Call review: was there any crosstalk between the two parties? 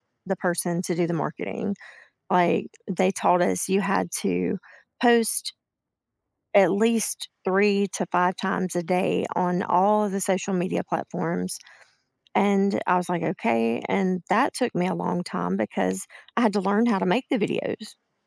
No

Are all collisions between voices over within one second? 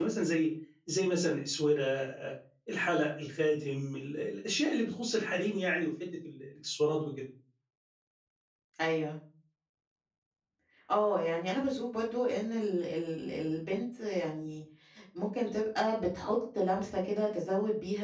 Yes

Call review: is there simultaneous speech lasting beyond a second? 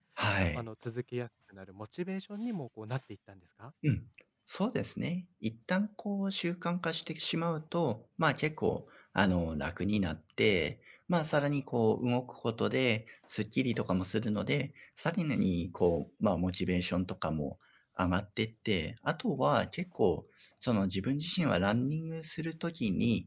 No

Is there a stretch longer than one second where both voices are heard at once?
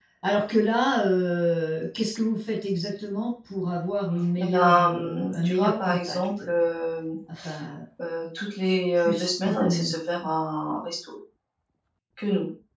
Yes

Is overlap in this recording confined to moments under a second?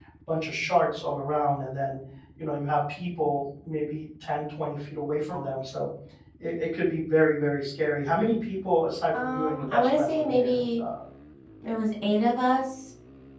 No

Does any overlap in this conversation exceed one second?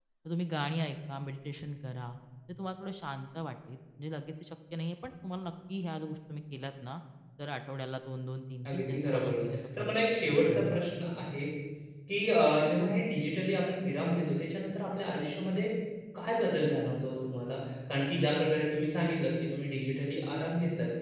Yes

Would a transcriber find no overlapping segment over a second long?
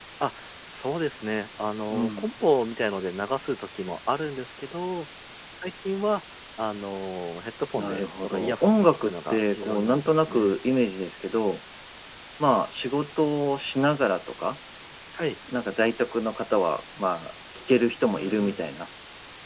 No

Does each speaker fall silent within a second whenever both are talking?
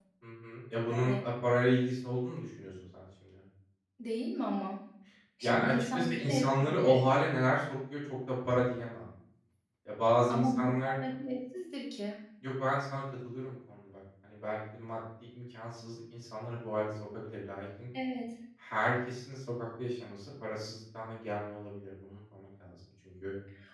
No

